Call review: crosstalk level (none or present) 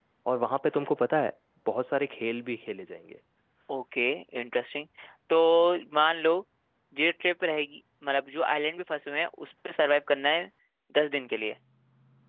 none